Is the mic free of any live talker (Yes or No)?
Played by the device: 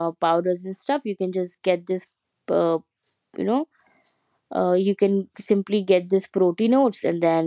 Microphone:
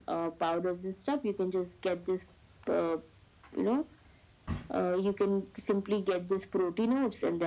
Yes